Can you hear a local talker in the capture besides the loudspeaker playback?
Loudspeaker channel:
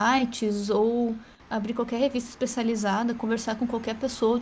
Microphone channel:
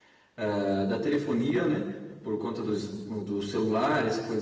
Yes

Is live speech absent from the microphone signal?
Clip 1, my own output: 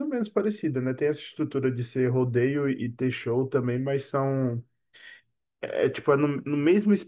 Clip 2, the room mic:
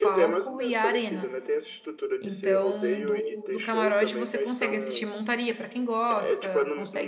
No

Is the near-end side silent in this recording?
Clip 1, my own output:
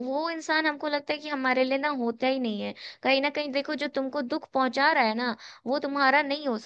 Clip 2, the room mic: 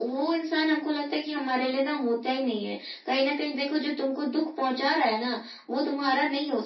Yes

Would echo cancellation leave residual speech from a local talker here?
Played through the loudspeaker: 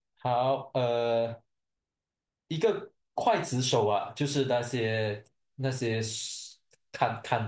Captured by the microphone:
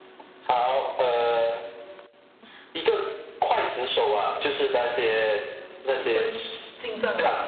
Yes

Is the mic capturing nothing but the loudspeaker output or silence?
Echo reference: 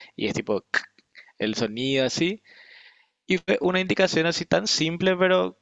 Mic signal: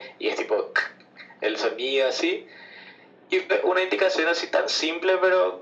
Yes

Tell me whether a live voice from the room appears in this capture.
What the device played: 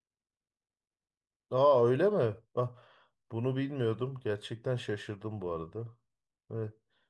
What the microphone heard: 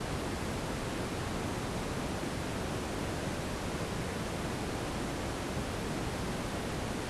No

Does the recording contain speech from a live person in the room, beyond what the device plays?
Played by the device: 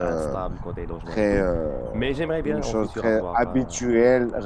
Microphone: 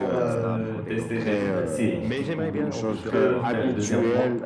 Yes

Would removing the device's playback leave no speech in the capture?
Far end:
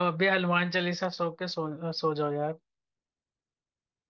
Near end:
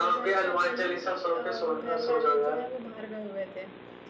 No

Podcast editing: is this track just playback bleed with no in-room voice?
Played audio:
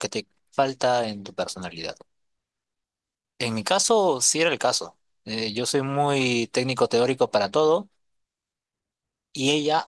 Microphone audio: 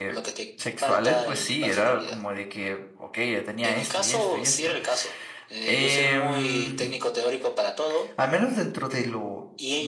No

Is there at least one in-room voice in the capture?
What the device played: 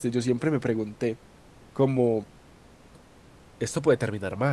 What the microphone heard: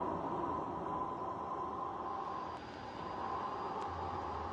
No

